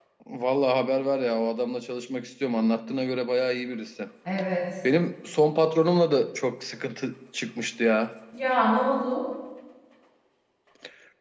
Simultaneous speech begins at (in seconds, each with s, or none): none